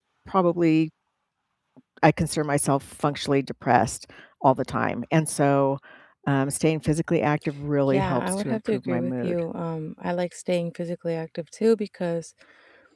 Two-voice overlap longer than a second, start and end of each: 7.9-9.3

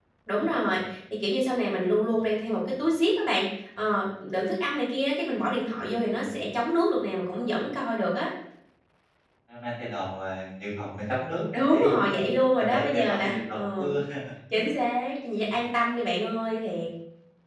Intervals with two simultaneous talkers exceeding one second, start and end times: 12.6-13.9

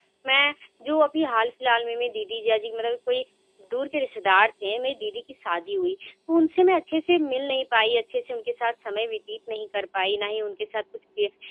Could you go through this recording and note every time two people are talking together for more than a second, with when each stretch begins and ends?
none

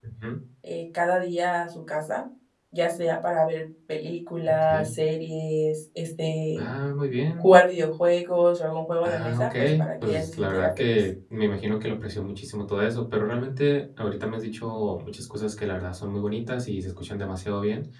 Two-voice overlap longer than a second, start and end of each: 9.0-10.9

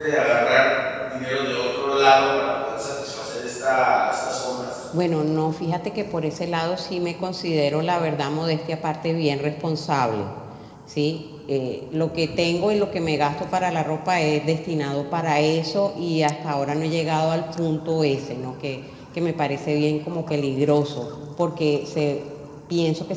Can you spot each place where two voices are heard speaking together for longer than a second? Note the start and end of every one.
none

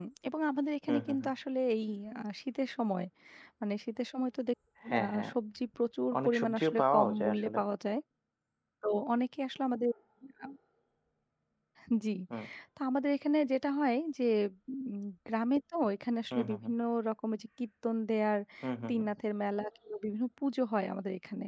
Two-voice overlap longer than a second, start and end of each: 6.2-7.6

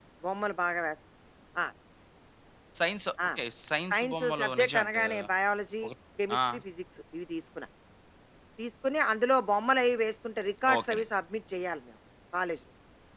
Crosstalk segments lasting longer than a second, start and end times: 3.9-5.3

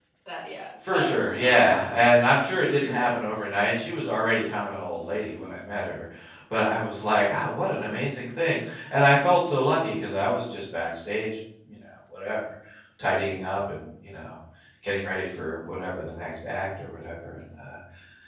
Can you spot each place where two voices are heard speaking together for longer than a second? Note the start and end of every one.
0.9-3.1

